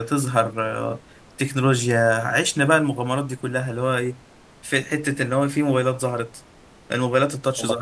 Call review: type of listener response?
listening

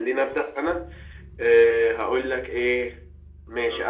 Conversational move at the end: listening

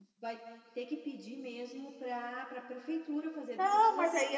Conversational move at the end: taking over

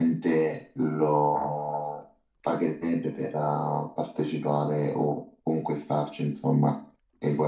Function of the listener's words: taking over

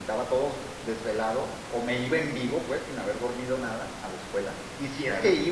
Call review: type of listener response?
listening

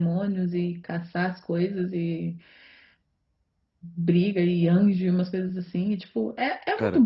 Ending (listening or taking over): listening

